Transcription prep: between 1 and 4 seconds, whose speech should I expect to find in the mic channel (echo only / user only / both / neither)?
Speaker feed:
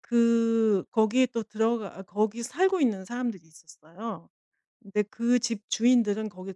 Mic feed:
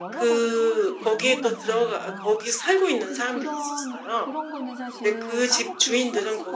both